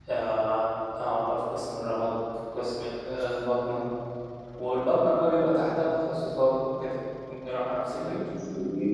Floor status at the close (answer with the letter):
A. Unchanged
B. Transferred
B